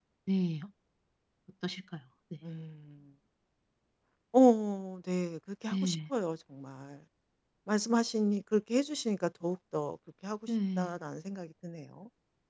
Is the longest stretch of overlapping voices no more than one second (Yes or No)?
Yes